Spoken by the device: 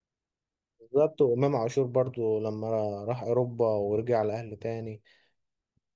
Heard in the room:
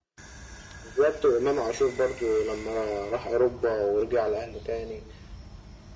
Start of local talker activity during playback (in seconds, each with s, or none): none